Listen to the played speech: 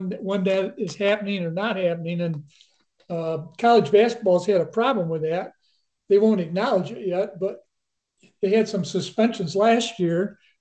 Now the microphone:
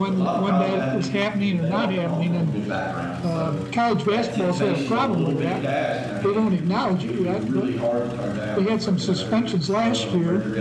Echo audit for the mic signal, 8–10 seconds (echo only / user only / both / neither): both